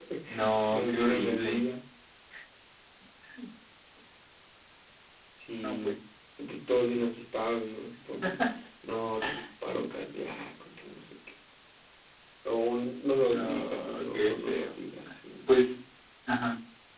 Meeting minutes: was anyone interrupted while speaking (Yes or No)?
Yes